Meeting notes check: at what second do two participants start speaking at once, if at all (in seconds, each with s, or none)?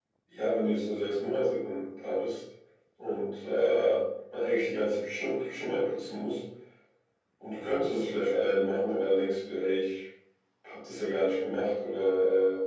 none